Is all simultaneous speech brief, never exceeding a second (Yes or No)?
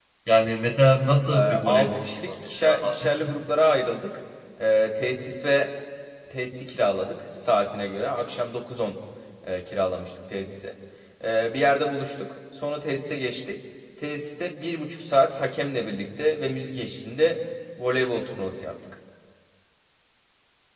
No